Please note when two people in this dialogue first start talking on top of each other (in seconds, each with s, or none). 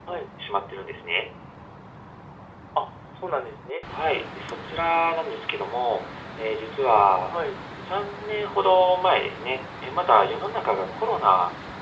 none